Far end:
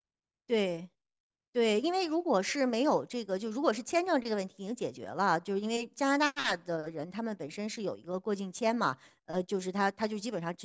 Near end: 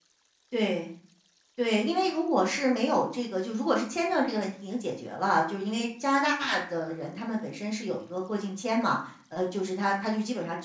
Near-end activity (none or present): none